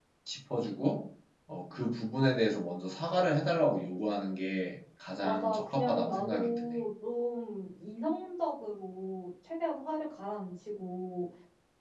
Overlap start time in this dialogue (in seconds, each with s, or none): 5.2 s